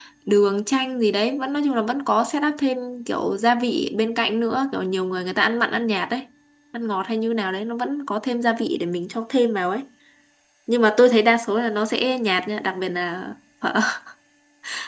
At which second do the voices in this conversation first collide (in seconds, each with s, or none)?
none